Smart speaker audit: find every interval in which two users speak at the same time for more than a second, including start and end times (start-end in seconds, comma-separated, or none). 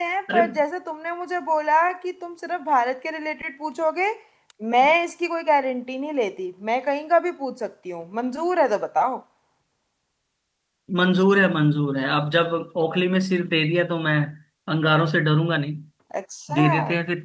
none